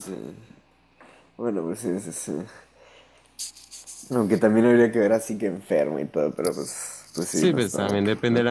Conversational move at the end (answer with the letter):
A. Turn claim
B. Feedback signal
A